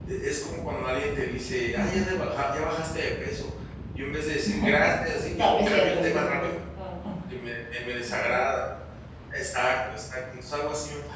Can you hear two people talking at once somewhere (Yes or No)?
Yes